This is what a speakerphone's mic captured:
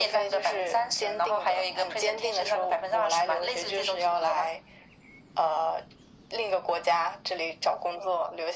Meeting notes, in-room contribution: none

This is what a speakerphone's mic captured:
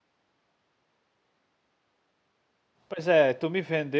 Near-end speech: present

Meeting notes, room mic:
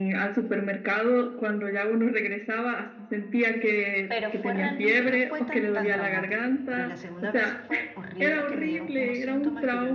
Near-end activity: present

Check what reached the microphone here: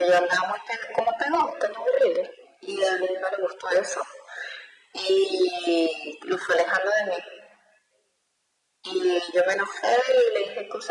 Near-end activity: none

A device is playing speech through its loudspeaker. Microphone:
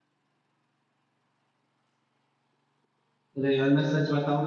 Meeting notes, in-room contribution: present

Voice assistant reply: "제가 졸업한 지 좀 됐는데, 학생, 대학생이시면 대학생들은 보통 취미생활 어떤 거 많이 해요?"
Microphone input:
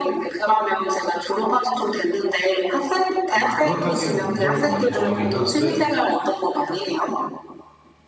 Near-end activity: present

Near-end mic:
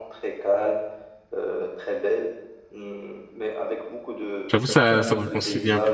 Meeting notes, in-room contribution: present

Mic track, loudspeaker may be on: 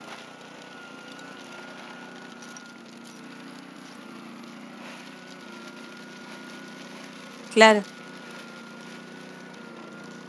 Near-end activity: present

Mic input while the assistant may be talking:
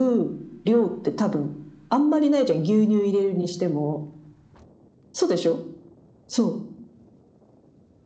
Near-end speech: none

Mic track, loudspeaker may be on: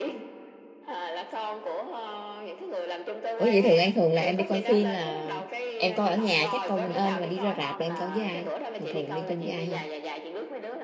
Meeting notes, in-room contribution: present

